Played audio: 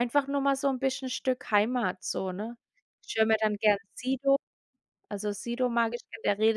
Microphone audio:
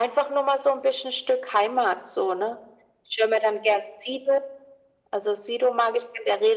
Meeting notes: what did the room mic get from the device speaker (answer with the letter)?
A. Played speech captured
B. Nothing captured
A